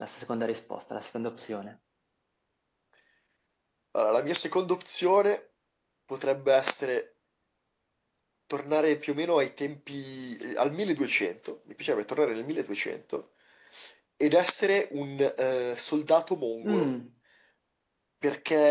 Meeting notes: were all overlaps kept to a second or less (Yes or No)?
Yes